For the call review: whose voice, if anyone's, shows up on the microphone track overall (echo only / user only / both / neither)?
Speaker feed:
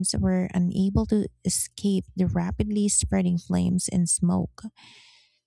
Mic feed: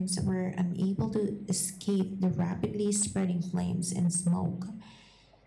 echo only